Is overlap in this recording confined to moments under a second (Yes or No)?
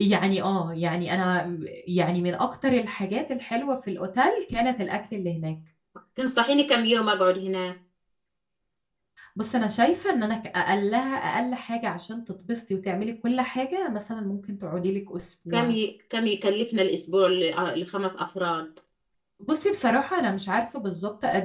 Yes